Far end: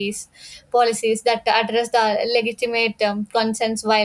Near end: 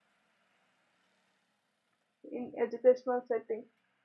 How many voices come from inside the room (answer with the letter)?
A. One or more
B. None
A